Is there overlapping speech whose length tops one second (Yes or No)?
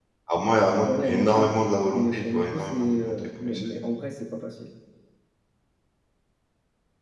Yes